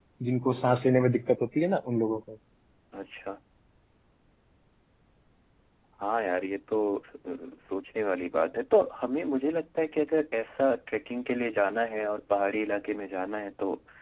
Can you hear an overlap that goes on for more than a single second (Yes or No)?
No